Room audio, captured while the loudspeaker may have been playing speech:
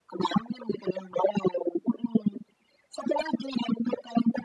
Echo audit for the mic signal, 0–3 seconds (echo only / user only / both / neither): echo only